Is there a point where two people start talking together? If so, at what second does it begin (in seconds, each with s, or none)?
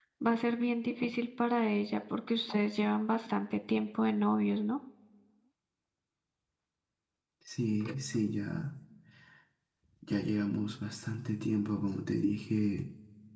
none